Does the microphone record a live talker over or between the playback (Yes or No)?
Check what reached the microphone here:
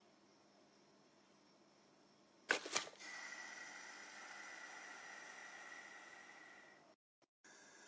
No